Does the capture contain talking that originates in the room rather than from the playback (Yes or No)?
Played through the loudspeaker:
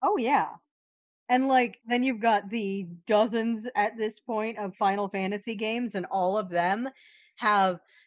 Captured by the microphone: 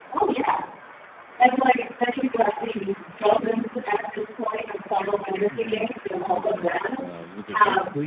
Yes